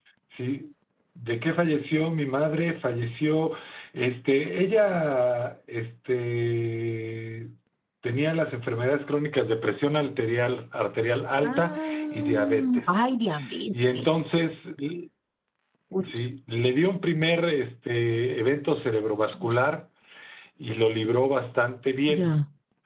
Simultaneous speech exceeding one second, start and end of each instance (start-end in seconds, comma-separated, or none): 11.4-13.0